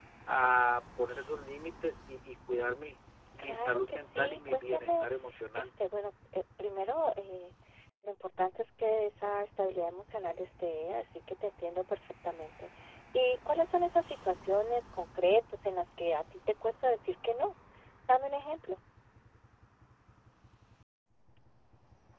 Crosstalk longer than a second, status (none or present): present